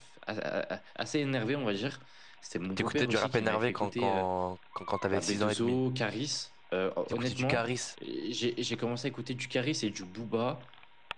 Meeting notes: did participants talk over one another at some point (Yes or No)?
Yes